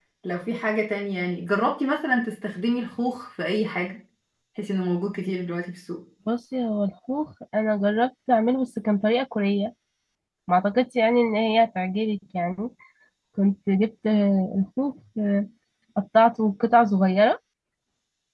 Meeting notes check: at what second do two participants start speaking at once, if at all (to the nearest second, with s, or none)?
none